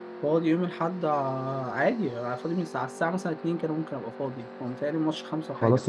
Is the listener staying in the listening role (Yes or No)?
No